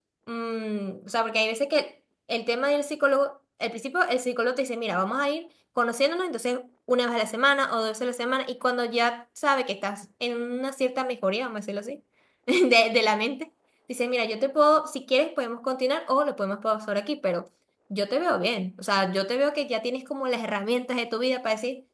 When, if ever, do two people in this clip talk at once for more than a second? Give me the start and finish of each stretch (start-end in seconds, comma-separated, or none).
none